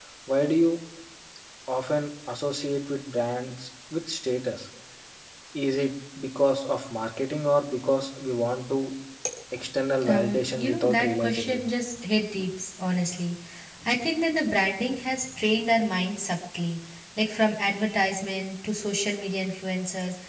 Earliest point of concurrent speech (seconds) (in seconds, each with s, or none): 10.1 s